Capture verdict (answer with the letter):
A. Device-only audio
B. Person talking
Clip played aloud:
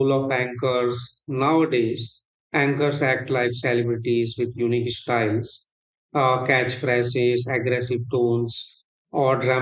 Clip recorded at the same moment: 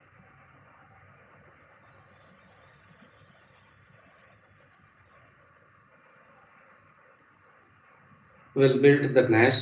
B